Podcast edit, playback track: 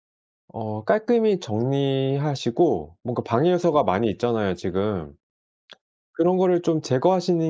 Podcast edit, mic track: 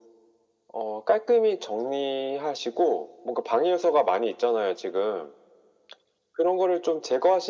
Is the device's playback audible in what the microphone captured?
Yes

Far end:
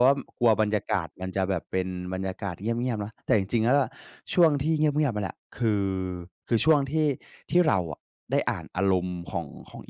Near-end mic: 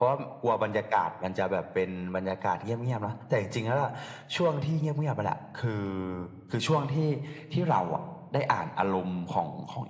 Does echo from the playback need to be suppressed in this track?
Yes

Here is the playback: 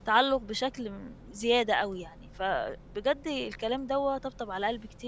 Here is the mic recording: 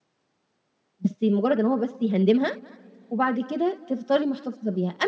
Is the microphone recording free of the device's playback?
Yes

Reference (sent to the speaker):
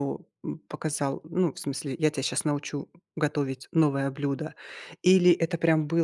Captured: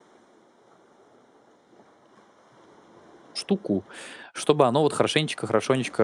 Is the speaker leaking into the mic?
No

